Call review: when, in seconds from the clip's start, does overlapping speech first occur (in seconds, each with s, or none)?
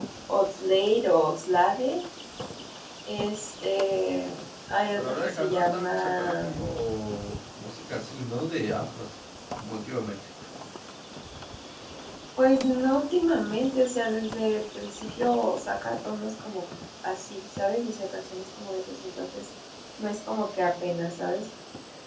4.9 s